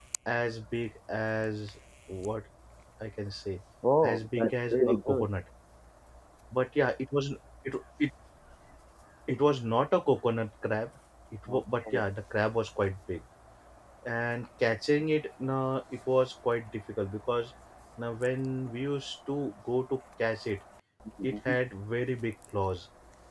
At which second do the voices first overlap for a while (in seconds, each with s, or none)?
4.0 s